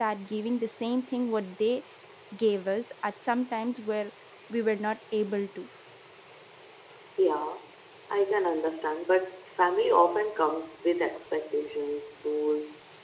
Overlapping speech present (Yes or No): No